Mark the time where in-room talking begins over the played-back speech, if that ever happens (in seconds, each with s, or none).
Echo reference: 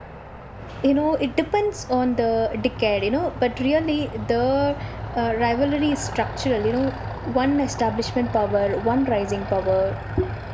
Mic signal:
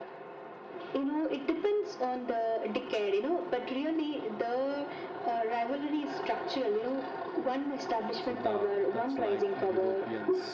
8.2 s